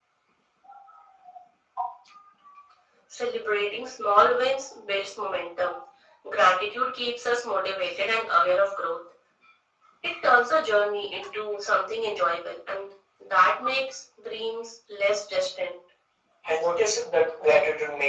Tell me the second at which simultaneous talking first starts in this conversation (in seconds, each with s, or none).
none